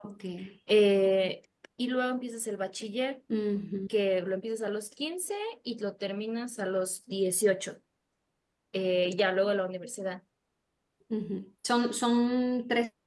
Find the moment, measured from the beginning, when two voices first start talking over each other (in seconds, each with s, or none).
none